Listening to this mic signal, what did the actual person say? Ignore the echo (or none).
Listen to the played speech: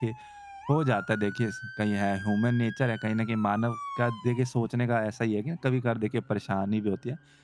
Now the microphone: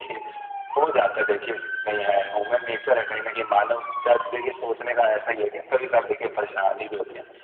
none